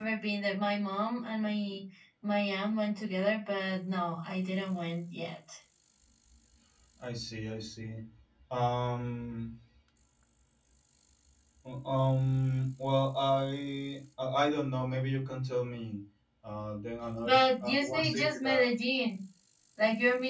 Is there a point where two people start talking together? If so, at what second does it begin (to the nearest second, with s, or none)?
17 s